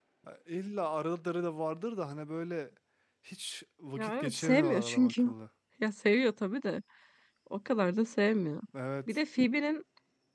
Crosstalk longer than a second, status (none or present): present